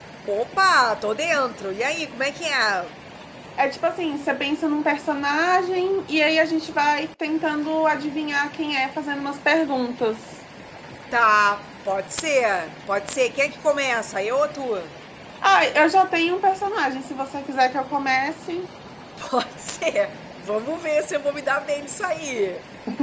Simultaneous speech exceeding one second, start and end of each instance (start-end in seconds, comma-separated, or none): none